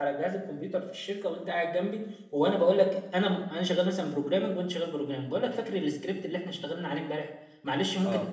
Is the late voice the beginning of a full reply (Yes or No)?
No